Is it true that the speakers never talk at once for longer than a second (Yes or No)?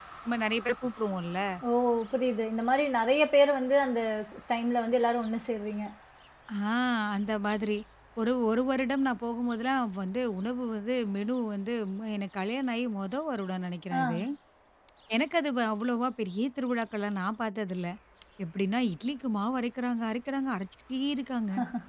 Yes